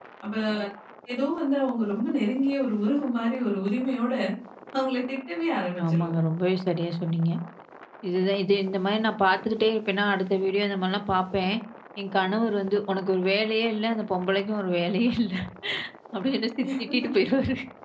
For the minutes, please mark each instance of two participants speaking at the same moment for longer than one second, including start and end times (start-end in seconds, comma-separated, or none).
none